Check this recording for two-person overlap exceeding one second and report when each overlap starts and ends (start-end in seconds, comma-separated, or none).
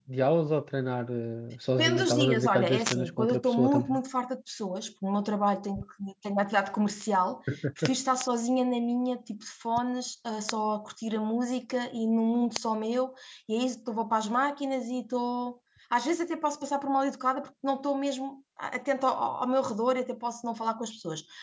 1.8-4.0